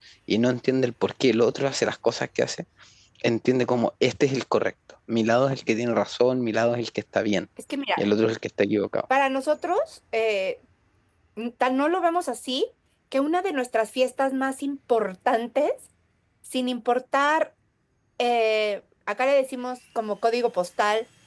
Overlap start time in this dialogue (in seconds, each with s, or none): none